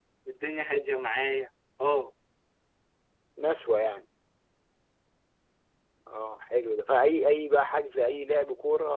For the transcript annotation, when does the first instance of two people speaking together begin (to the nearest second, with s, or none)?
none